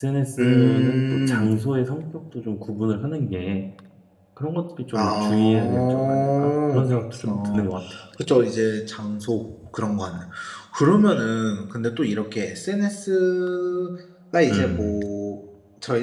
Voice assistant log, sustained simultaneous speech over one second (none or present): present